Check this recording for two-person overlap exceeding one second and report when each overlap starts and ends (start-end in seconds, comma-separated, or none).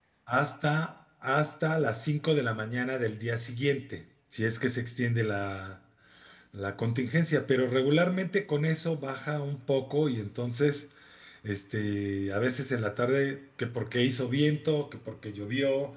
none